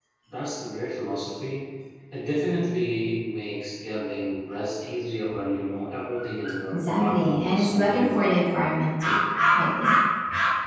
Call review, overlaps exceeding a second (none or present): present